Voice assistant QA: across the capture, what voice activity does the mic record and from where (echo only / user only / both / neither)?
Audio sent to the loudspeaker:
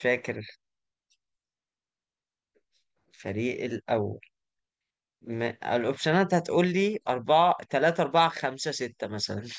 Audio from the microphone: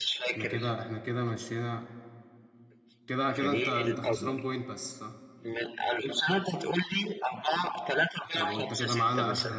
both